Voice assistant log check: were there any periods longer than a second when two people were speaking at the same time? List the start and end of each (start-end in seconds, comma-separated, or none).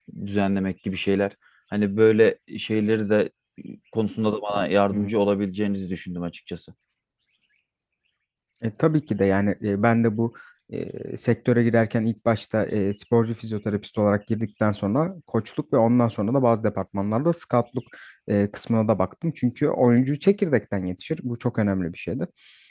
none